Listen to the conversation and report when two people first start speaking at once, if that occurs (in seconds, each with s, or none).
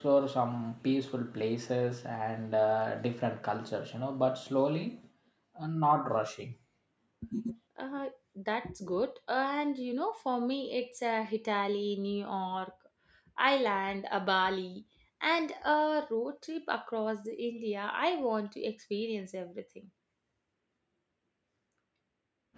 none